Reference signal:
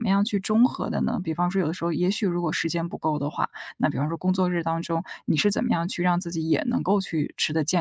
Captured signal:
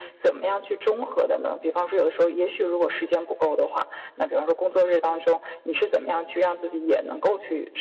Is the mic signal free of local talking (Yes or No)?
Yes